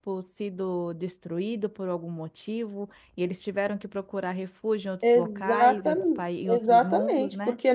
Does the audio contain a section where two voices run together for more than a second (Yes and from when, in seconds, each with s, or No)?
Yes, from 5.0 s